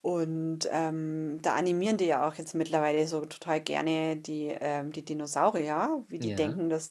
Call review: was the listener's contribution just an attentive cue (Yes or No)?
Yes